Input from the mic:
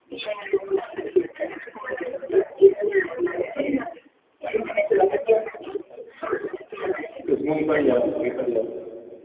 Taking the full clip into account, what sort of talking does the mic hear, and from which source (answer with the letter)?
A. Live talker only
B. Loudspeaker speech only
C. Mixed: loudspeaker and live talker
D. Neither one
C